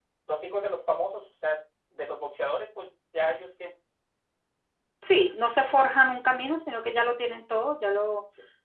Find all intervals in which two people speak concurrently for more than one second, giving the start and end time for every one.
none

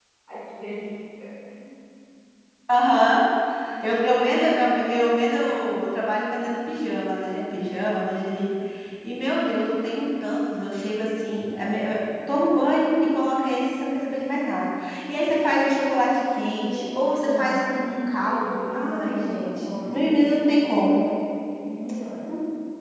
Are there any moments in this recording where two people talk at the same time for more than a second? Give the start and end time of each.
16.4-17.6, 18.3-21.0

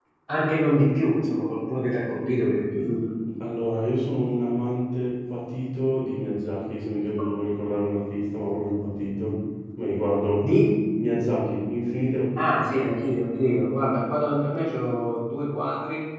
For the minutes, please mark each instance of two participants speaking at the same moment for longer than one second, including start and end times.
none

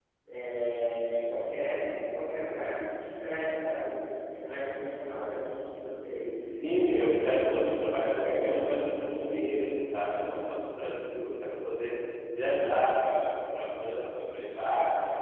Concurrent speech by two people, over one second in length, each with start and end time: 6.3-8.6

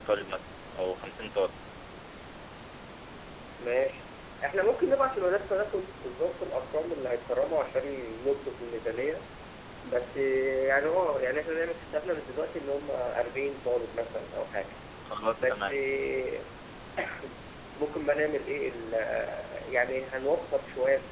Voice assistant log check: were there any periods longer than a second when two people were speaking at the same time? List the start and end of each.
none

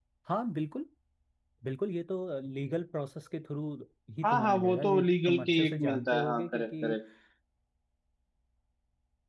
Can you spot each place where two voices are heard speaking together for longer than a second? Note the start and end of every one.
4.2-6.9

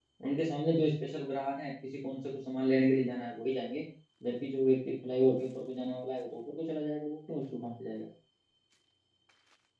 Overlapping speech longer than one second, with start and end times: none

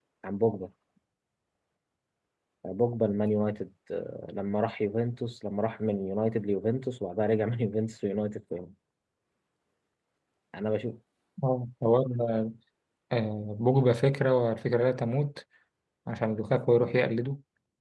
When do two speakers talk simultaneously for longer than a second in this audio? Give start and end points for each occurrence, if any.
none

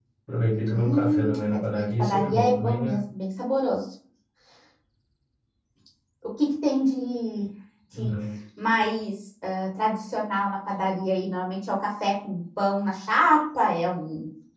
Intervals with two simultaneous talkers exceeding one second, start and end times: 0.7-3.0

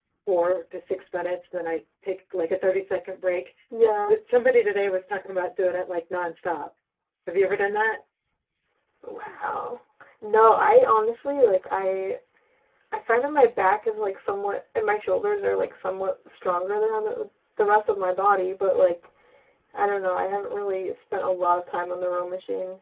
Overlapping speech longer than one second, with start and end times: none

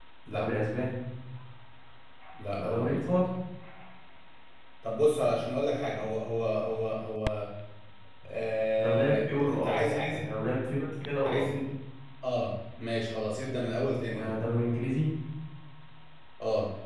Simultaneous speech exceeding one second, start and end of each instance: 8.8-10.3

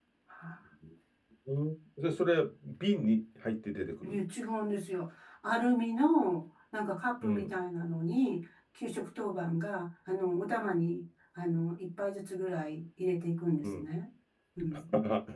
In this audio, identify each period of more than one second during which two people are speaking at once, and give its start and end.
none

